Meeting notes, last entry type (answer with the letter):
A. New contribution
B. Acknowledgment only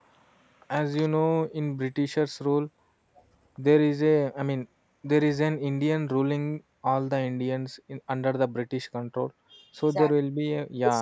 B